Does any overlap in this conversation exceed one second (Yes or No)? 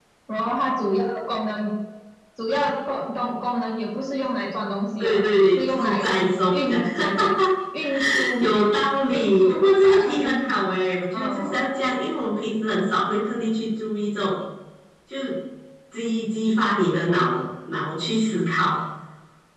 Yes